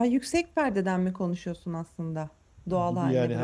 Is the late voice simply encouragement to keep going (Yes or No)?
No